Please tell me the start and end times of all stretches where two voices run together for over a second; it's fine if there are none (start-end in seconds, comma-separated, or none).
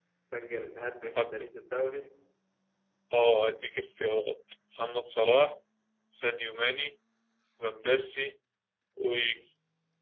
none